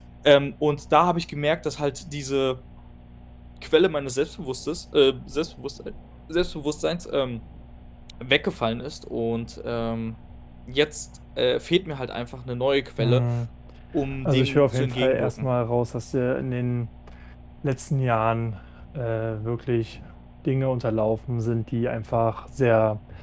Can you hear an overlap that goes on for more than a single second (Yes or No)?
Yes